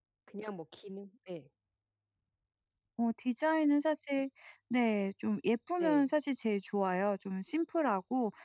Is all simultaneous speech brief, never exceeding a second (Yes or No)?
Yes